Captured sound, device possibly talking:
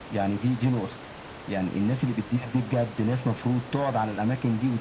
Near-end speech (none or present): none